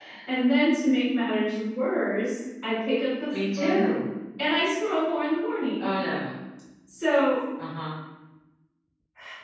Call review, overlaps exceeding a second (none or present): none